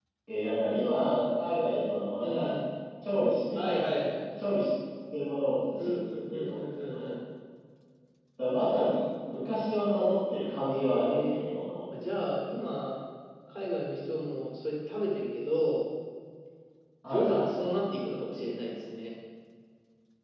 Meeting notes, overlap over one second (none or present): present